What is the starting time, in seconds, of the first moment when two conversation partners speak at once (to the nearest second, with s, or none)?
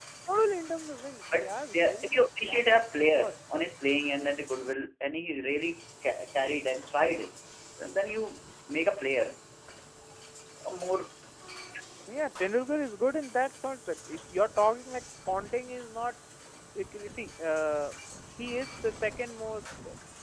1 s